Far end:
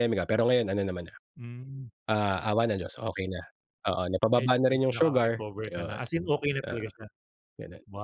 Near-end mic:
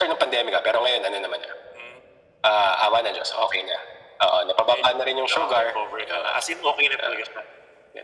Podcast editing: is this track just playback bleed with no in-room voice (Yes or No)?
Yes